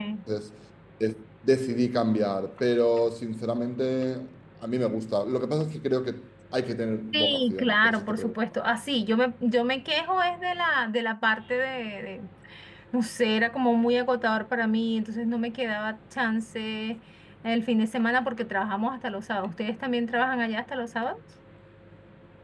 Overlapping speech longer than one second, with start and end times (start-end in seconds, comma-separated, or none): 7.1-8.3